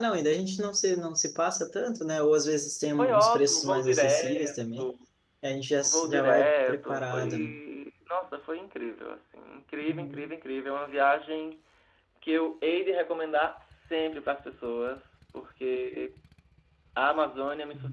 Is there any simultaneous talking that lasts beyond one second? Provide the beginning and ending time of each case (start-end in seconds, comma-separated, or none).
2.9-4.8, 5.8-7.5